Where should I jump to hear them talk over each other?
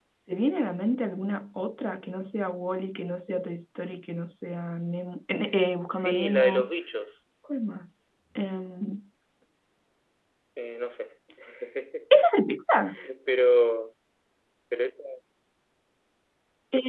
5.4 s

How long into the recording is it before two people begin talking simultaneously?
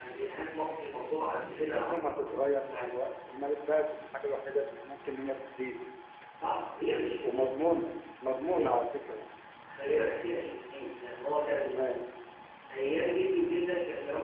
1.5 s

